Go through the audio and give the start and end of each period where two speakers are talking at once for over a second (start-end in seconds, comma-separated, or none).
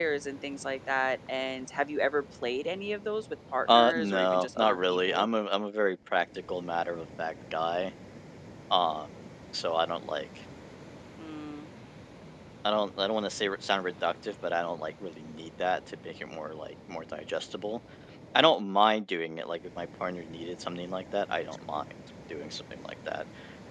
3.7-5.3